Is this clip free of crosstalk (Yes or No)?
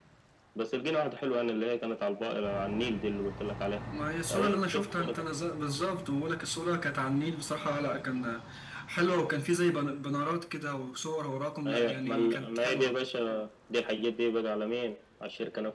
No